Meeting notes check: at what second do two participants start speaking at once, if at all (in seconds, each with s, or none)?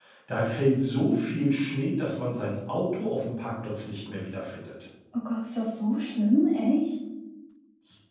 none